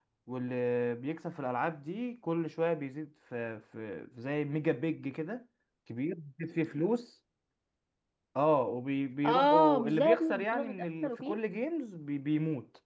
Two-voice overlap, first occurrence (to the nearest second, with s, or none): 9 s